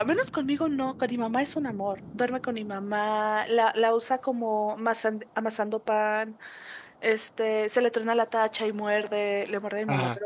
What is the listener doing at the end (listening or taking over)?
listening